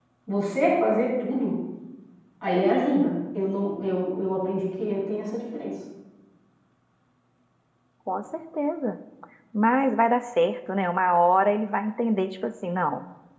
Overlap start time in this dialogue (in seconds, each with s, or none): none